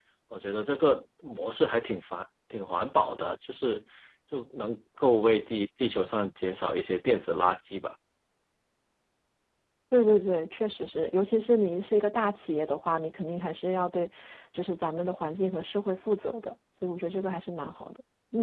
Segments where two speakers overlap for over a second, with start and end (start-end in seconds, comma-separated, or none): none